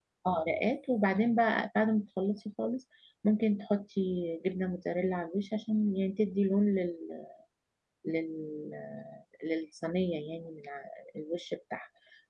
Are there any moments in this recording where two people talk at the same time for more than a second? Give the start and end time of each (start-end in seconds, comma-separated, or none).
none